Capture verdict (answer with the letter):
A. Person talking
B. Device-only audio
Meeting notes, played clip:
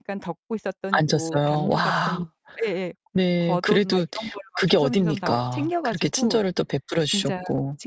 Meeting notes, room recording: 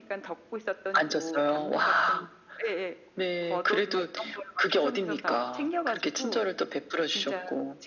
B